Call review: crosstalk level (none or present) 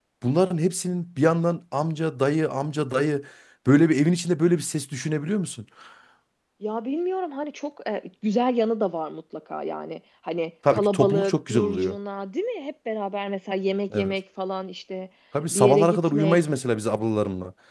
present